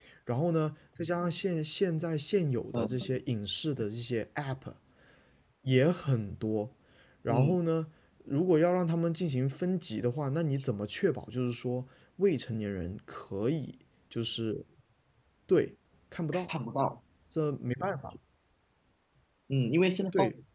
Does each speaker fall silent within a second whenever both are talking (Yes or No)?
Yes